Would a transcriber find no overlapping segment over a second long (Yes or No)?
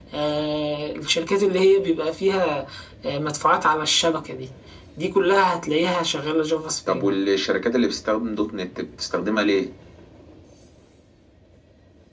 Yes